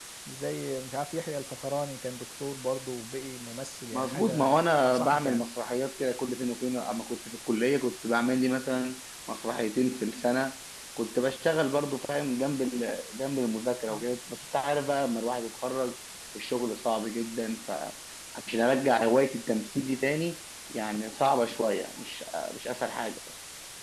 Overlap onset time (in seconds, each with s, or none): 3.9 s